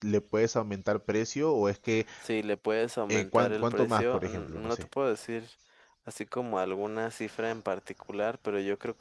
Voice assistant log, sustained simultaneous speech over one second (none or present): present